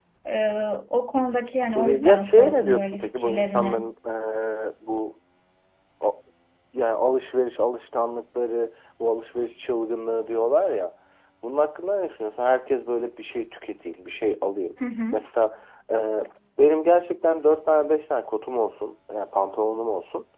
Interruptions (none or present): present